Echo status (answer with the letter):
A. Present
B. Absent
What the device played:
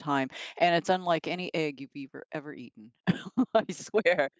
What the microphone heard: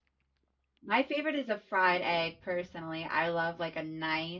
B